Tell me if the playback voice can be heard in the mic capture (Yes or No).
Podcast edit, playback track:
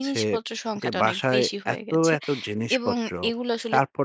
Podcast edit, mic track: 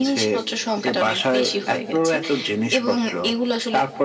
Yes